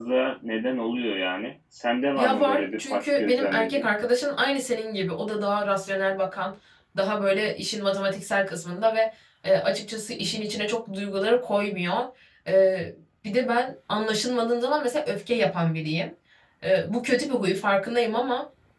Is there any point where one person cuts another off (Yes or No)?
Yes